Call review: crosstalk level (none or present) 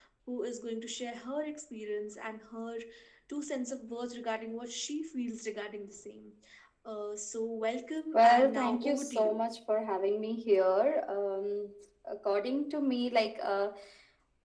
present